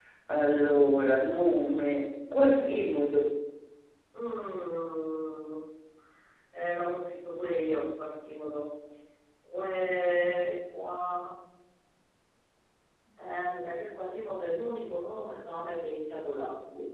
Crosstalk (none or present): none